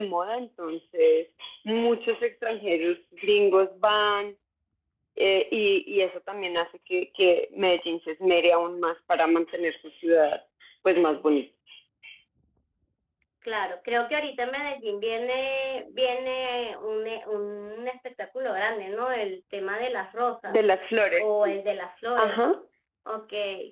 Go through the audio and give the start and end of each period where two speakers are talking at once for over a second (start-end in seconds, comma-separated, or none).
none